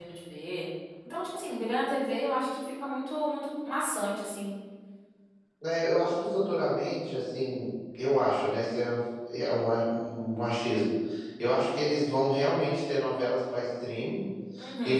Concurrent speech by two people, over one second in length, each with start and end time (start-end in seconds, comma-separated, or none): none